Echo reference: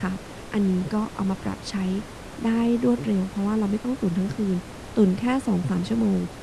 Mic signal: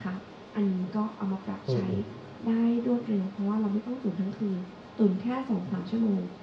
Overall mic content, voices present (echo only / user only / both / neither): both